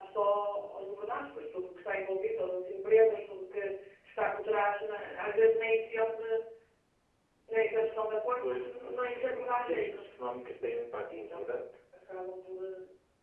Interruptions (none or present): present